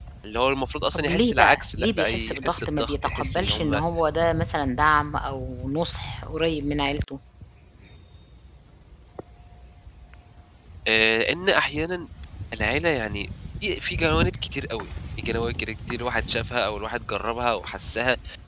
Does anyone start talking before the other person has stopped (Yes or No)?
Yes